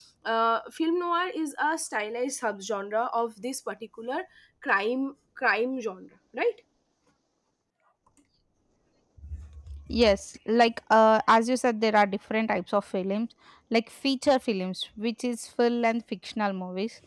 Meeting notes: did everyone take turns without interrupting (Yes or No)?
Yes